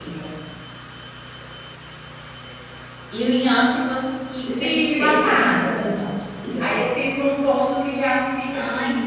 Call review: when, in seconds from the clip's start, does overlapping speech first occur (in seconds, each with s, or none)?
4.5 s